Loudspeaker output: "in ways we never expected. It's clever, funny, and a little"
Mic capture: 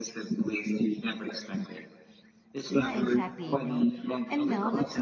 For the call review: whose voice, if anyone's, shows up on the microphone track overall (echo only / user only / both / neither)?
both